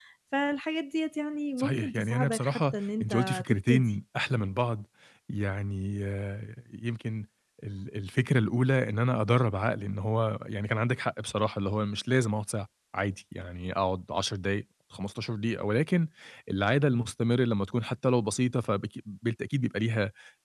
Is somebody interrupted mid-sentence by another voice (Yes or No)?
Yes